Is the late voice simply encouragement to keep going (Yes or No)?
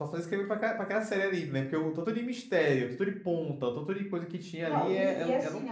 No